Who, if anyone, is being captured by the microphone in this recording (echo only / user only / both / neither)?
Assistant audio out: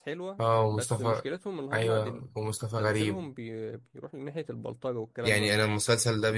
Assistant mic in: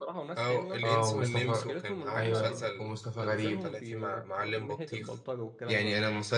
both